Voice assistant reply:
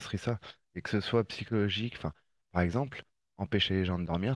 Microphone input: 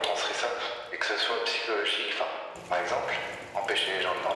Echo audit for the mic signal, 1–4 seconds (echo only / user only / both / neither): echo only